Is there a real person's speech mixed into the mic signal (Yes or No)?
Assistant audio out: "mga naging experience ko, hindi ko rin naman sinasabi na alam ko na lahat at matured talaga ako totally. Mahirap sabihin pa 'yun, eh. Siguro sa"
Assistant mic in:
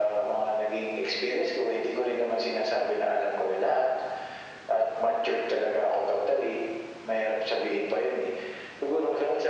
No